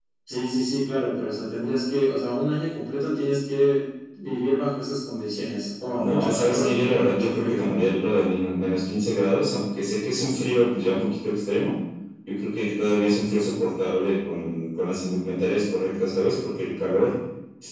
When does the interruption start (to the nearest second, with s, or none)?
6 s